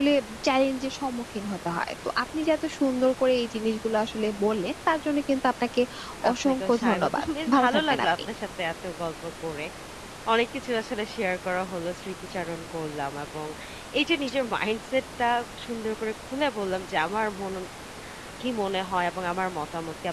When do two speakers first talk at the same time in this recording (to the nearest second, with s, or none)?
6 s